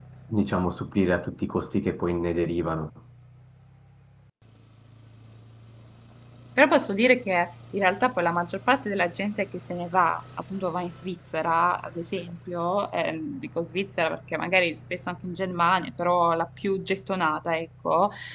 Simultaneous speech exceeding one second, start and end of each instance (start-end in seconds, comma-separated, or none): none